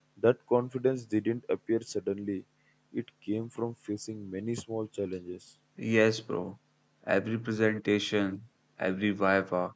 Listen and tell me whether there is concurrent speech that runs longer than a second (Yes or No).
No